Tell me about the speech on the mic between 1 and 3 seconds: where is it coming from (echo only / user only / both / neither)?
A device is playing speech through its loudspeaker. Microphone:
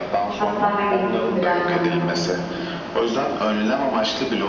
both